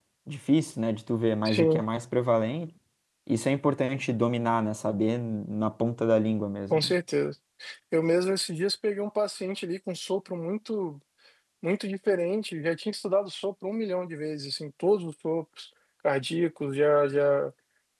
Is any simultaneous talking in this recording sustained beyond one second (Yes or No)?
No